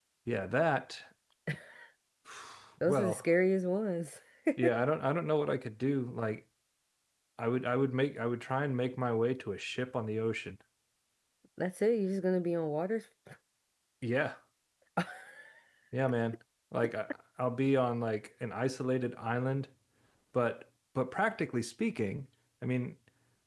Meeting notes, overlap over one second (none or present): none